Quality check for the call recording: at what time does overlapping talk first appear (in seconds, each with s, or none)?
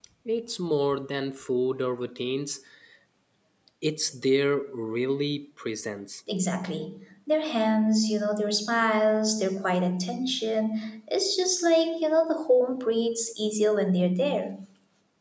none